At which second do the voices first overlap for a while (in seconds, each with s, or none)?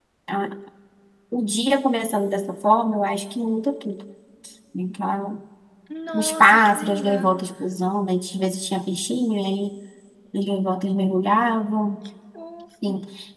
6.1 s